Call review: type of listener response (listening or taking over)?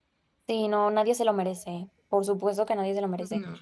listening